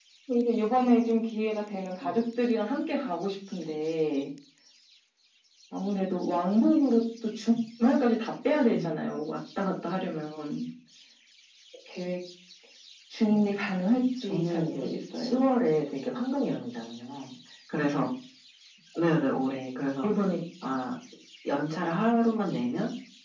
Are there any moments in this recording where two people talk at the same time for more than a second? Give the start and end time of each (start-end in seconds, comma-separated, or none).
14.2-15.5